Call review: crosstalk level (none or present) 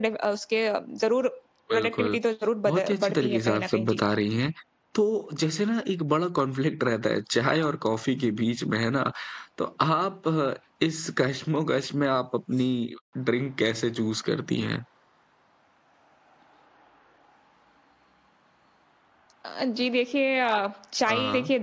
present